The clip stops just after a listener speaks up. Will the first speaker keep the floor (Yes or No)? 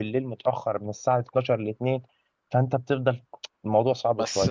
No